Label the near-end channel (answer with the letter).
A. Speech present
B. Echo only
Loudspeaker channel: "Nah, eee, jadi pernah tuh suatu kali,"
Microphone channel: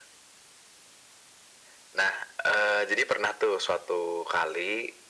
B